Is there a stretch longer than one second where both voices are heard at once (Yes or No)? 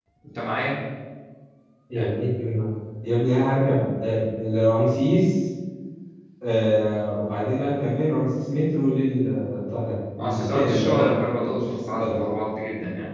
Yes